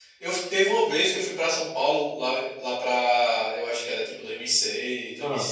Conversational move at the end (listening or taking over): listening